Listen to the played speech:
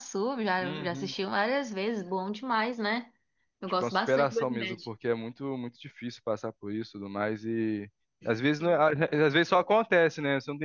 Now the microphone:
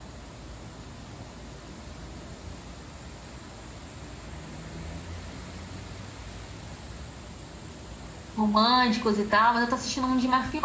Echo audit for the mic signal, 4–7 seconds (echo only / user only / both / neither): neither